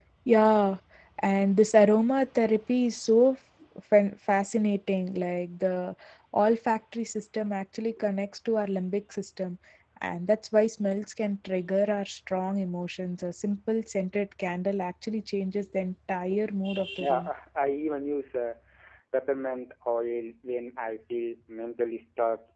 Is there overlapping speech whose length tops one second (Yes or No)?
No